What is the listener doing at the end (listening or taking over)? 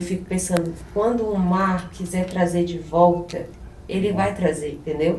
listening